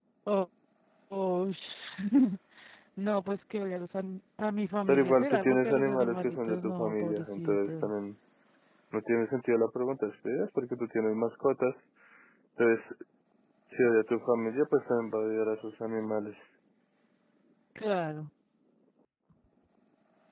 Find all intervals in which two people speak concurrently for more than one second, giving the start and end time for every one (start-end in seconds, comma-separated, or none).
4.9-7.9